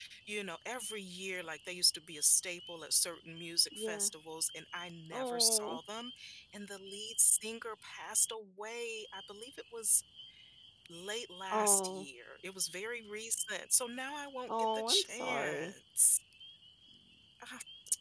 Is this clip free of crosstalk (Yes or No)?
No